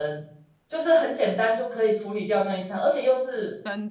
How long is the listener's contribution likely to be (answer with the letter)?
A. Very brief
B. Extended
A